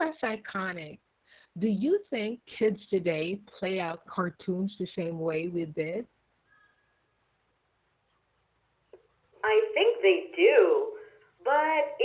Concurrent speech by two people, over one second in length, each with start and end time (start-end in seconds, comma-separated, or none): none